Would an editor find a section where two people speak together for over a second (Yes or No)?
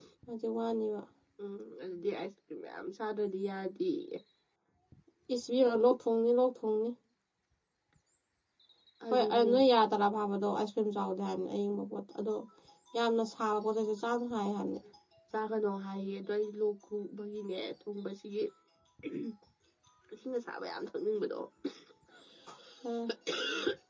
No